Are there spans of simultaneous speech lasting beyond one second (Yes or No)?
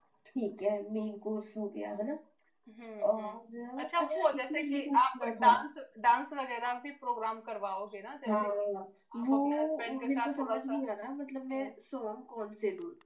Yes